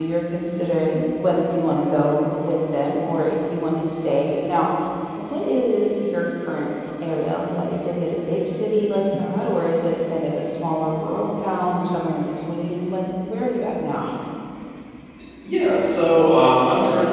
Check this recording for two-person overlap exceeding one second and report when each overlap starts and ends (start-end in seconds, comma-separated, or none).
none